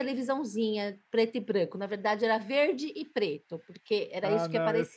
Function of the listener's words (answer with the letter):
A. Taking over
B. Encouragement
A